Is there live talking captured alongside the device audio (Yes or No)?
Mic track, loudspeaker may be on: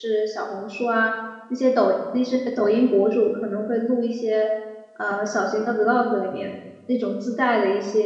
Yes